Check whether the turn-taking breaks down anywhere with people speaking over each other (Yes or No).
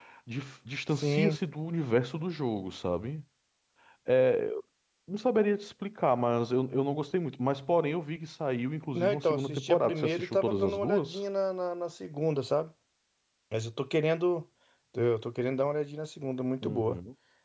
Yes